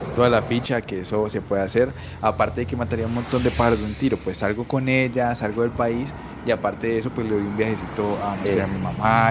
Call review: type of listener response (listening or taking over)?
listening